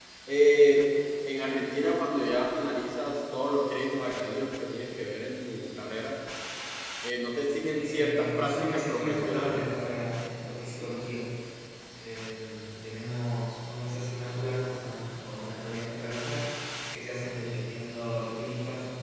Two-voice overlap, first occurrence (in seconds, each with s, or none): 7.8 s